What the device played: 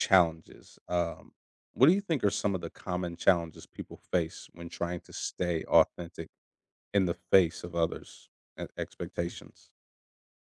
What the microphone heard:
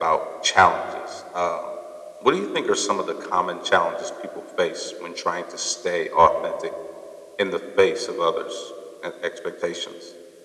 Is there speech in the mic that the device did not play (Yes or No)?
No